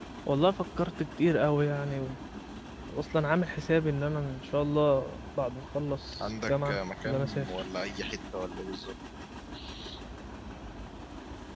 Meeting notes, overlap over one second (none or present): present